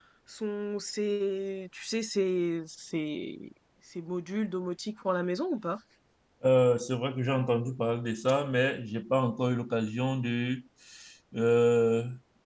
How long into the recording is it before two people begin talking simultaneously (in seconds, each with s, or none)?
none